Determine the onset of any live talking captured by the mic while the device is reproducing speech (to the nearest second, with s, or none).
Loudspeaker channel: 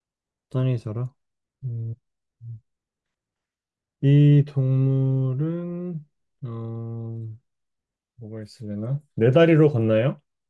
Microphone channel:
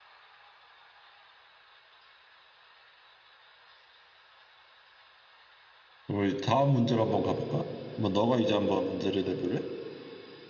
6 s